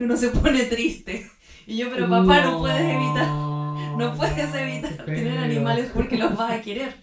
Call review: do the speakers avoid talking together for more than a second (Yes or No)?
No